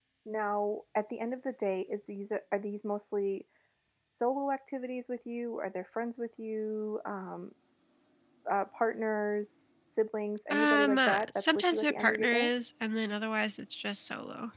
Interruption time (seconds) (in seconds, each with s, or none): 10.5 s